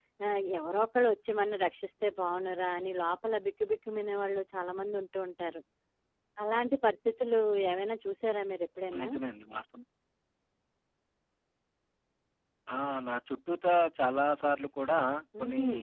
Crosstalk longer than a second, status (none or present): none